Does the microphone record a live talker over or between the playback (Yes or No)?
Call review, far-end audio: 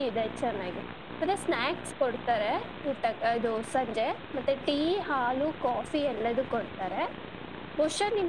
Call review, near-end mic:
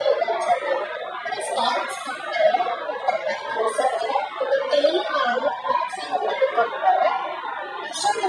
No